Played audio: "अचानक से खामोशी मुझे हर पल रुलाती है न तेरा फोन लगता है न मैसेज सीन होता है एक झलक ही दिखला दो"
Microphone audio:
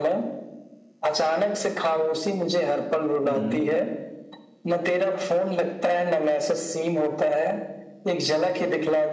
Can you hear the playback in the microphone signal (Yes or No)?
Yes